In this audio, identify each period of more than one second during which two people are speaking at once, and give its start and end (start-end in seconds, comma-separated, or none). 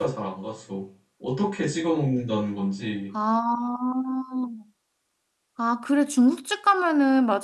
none